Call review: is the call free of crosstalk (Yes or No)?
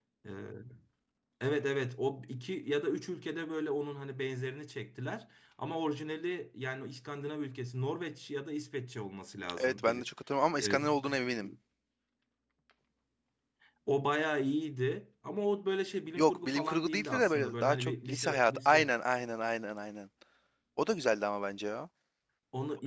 No